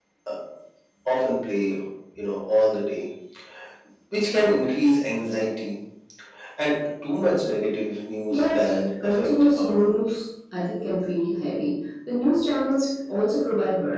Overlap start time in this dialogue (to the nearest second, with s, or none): 8 s